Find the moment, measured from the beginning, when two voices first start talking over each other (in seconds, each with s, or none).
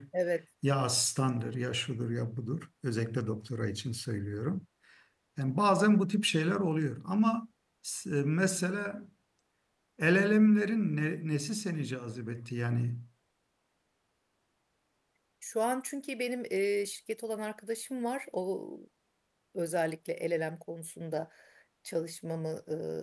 none